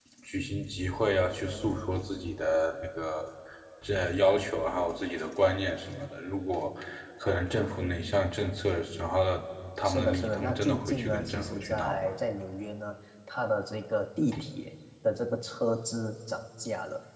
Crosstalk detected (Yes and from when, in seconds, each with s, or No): Yes, from 9.8 s